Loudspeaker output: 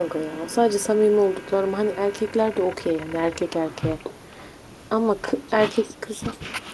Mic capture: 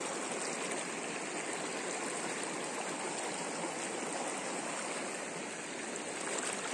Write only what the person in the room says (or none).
none